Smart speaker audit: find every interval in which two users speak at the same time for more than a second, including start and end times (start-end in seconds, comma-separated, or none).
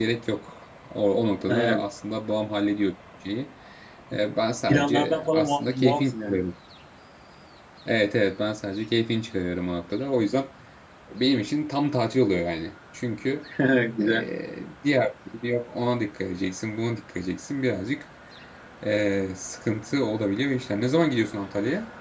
4.7-6.4